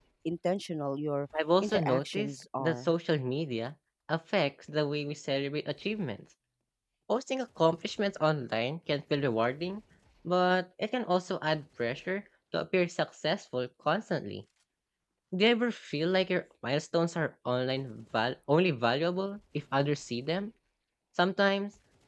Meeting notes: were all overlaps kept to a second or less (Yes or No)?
No